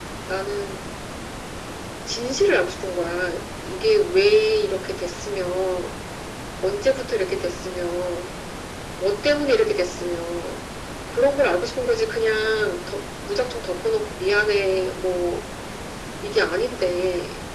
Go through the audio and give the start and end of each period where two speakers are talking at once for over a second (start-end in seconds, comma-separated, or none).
none